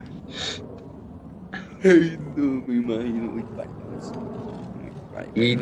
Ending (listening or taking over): taking over